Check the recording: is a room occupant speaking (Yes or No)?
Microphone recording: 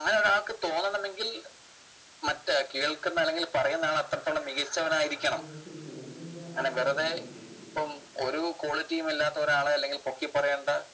Yes